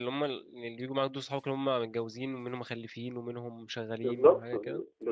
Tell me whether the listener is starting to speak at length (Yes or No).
Yes